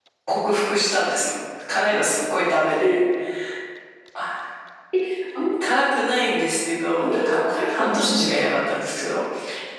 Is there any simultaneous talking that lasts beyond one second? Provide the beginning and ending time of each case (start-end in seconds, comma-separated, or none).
6.9-8.6